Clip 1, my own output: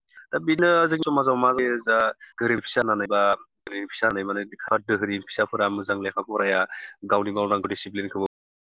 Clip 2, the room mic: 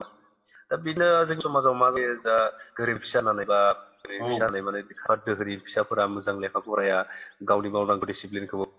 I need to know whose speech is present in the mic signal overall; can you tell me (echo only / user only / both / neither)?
both